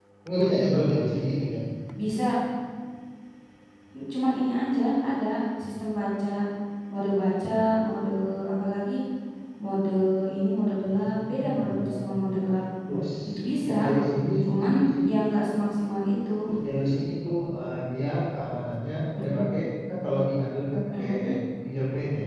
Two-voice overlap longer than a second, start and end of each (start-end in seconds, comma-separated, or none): 10.8-12.1